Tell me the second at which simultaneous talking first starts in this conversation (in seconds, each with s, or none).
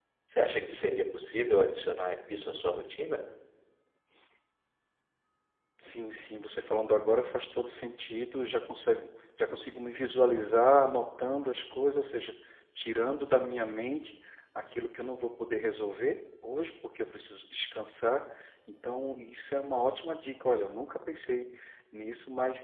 none